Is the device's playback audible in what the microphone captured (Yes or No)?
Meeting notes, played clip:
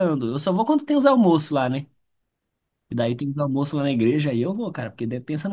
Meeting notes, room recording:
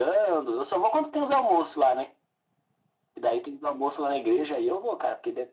Yes